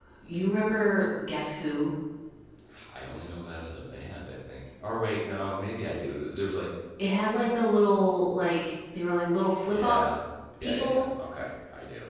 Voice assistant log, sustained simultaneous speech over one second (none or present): none